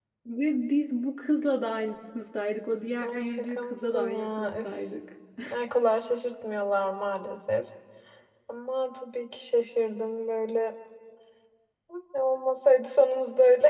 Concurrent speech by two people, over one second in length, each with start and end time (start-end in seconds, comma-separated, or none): 3.0-4.8